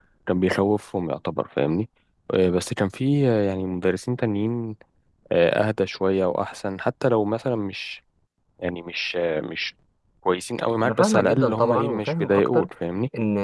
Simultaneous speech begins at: 11 s

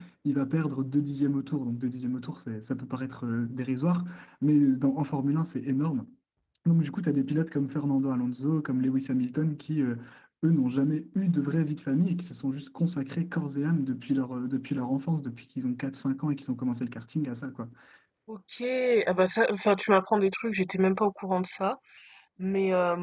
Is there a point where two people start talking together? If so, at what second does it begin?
none

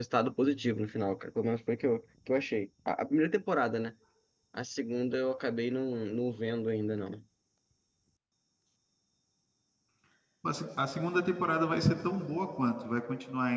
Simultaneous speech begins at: none

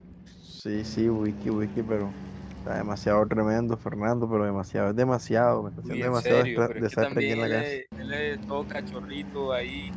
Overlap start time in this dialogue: 6 s

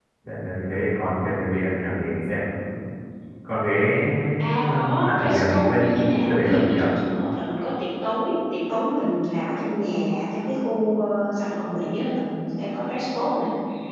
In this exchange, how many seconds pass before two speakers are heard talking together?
5 s

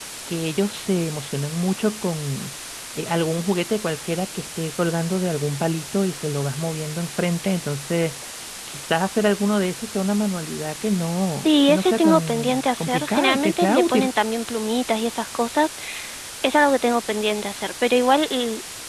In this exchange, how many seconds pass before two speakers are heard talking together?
11 s

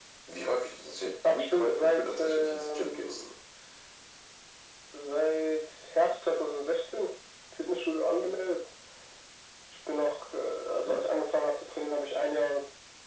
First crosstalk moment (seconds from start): 1 s

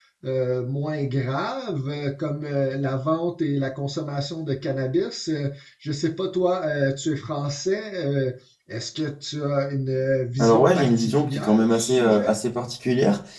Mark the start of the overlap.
10 s

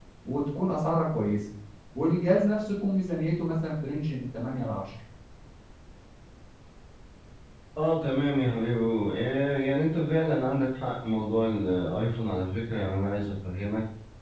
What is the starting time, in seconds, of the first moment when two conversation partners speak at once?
none

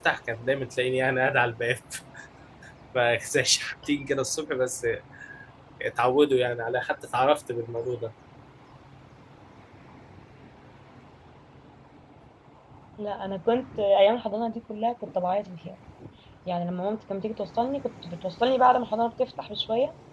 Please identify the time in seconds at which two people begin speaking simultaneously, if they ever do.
none

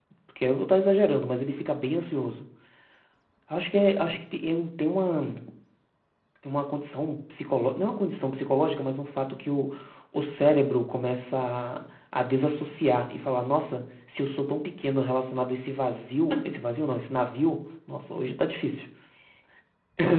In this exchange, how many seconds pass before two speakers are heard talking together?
none

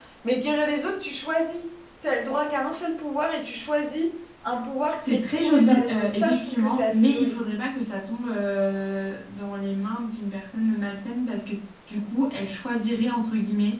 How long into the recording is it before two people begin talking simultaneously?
5 s

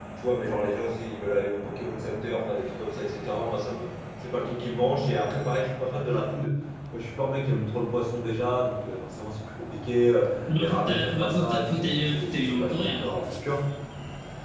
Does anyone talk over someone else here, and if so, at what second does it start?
10 s

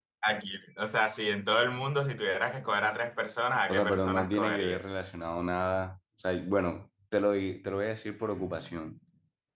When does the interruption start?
4 s

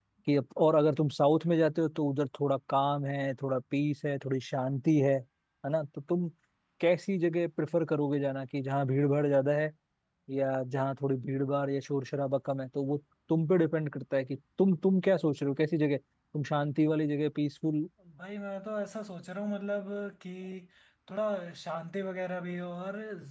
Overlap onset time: none

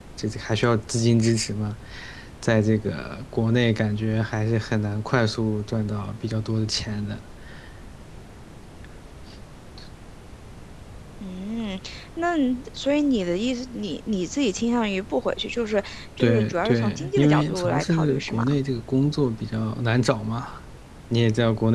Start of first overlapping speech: 16 s

